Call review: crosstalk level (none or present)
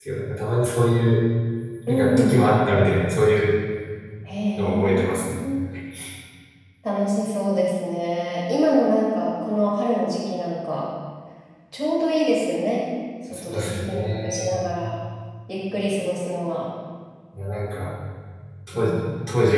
present